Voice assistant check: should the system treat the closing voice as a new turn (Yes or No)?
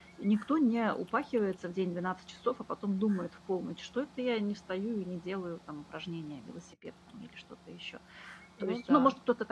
No